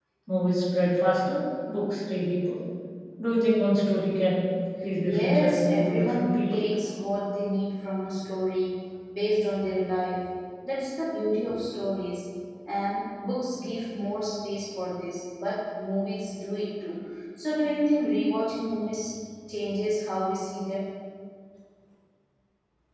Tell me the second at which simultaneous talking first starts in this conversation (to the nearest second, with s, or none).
5 s